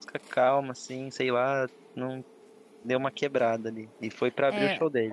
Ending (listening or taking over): taking over